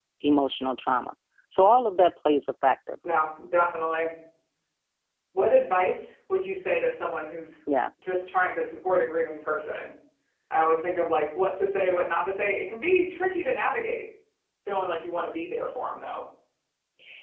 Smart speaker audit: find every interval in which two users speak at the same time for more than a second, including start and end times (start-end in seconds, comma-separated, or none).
none